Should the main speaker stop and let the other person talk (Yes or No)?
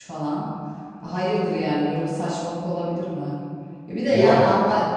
No